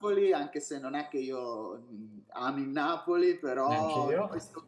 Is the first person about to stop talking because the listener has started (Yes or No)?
No